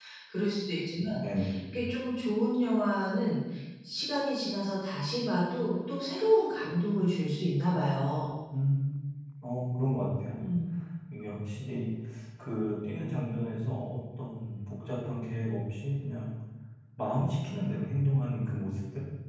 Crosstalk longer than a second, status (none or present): none